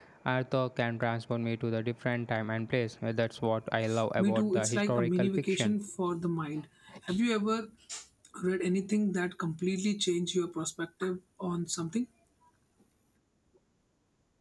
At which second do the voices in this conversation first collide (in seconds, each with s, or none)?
4.2 s